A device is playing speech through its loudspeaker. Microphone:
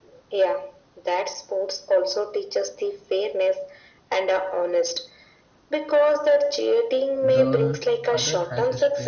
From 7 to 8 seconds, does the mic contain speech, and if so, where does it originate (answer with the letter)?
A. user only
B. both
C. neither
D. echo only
B